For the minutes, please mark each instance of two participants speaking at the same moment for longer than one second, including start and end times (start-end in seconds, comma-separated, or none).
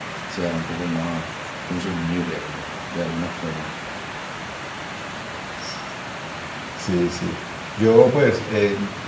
none